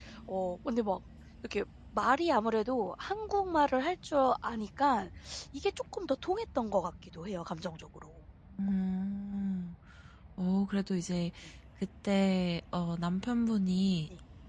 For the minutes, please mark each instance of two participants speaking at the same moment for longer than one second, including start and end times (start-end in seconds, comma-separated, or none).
none